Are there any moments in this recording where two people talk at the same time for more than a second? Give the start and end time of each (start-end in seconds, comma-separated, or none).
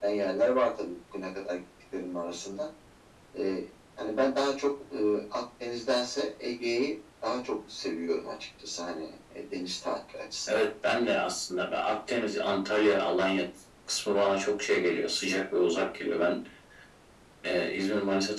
none